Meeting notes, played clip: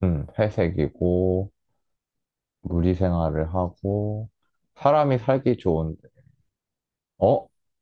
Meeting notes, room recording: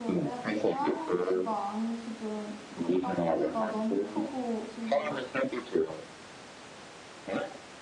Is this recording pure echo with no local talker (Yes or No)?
No